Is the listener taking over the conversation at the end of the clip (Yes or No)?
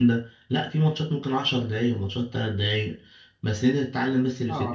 No